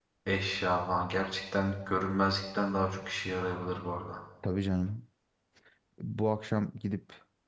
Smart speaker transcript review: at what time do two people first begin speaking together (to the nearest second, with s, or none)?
none